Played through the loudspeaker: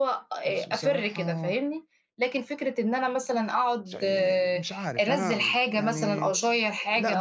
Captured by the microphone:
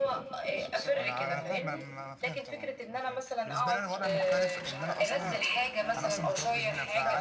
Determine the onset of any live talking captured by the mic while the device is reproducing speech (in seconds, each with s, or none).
0.9 s